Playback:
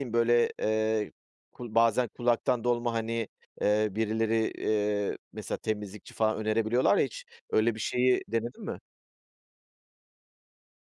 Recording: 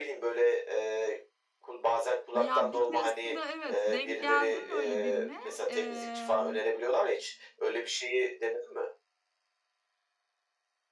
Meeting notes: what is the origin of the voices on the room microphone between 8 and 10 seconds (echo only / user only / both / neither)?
echo only